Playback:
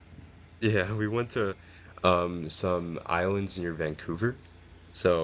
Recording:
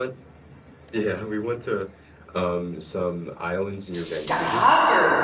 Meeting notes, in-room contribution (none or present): present